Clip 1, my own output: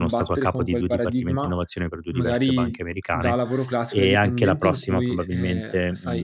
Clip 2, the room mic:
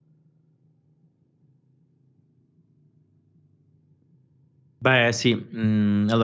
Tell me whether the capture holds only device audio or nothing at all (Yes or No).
No